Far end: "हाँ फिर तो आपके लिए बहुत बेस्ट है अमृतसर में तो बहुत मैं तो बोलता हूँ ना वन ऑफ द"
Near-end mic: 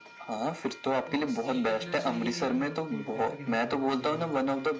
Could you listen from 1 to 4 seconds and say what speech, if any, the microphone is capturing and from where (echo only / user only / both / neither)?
both